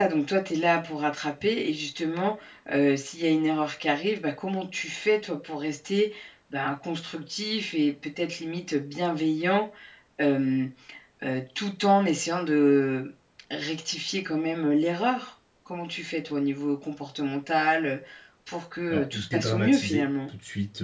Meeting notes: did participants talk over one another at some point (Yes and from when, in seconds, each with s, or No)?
Yes, from 18.9 s